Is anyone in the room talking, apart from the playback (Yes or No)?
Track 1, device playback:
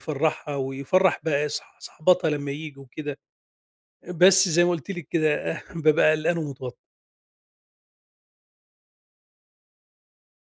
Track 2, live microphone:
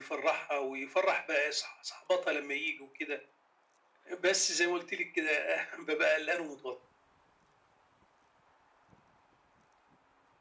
No